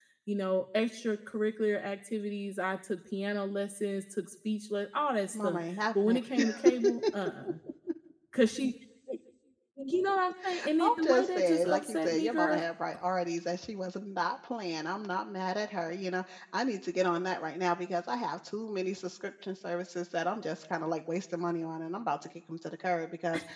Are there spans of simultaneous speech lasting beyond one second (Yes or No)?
Yes